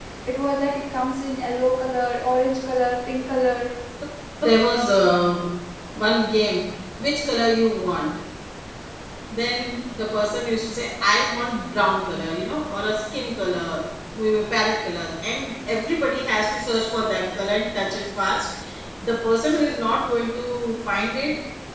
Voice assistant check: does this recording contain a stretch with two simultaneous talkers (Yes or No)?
No